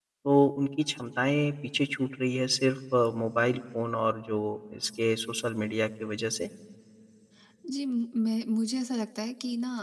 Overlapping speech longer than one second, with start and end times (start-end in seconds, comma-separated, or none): none